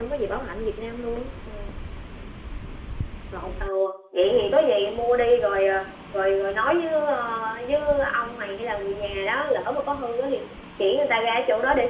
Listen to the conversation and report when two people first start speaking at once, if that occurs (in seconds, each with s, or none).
none